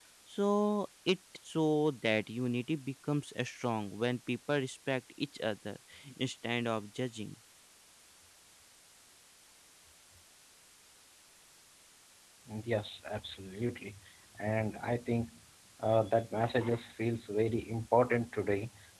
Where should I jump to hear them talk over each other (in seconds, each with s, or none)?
none